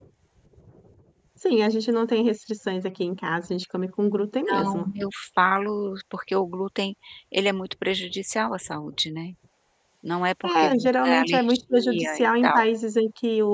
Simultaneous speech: Yes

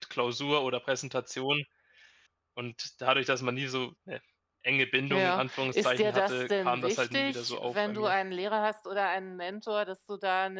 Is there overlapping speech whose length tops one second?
Yes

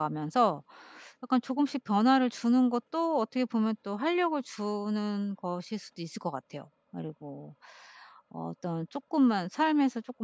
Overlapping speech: No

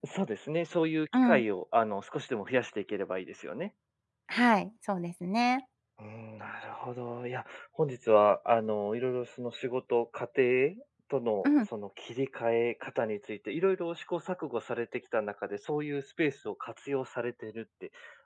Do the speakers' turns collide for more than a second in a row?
No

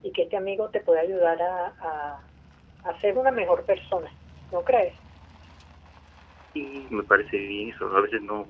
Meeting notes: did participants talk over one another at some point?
No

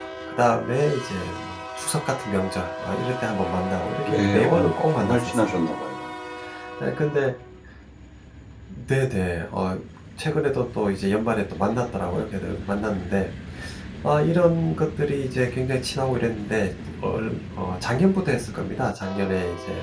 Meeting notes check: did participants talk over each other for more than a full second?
Yes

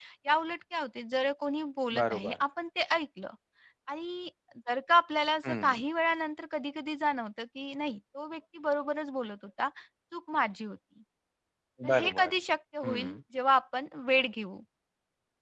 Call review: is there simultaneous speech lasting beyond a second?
No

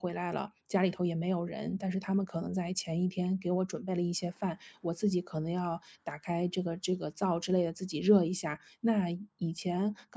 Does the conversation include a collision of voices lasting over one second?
No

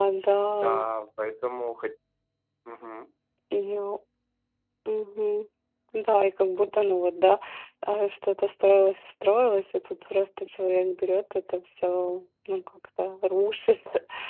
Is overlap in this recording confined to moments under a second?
Yes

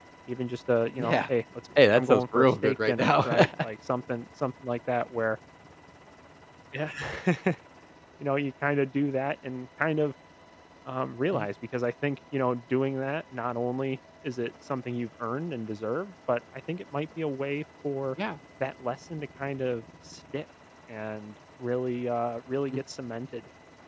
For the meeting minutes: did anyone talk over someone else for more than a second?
Yes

